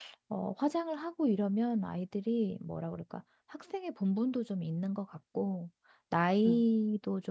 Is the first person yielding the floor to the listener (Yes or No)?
No